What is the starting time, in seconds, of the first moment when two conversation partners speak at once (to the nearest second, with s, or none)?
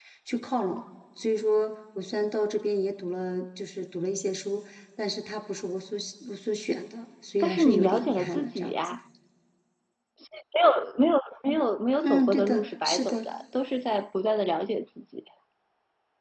7 s